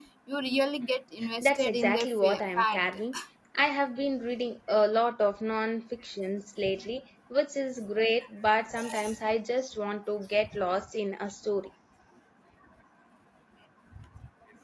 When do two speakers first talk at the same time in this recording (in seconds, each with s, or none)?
1.4 s